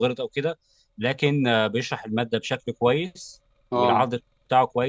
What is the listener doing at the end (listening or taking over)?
listening